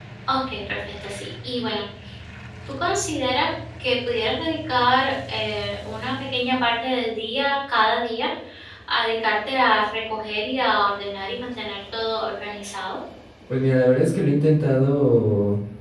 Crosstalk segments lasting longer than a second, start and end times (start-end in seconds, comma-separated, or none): none